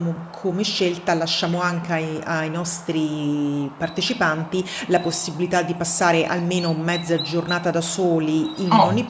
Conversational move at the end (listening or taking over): taking over